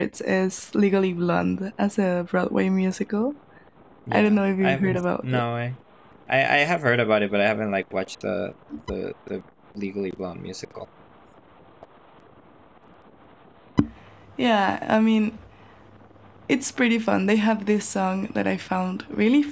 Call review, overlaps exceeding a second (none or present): present